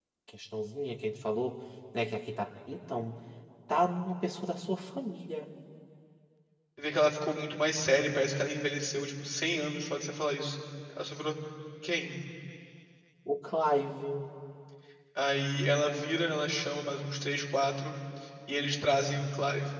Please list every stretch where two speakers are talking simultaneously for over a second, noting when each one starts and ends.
none

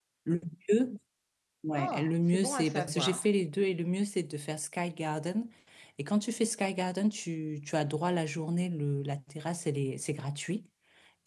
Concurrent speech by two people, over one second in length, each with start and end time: 1.8-3.3

